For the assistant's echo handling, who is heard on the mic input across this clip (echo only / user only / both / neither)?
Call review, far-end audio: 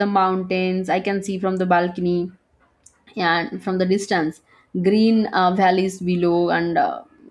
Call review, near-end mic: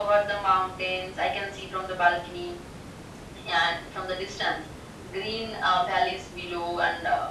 echo only